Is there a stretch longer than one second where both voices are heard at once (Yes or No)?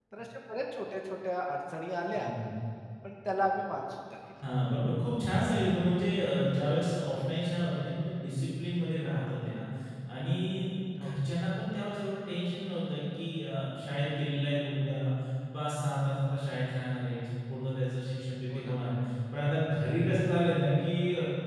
No